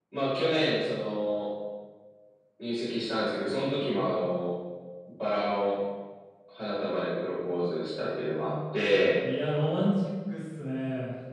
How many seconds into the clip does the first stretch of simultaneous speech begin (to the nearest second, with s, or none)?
none